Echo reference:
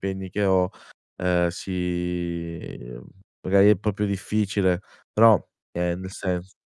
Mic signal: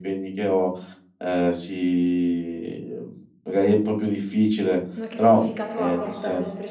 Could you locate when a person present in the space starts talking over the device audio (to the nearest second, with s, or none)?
5 s